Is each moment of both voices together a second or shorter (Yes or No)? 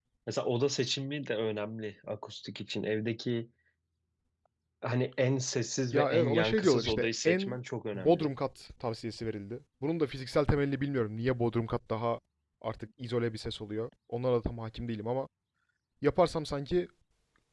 No